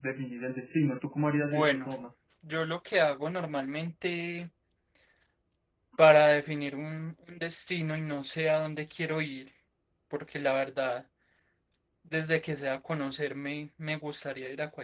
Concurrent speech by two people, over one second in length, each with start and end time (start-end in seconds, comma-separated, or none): none